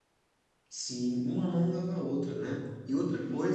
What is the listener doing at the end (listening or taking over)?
listening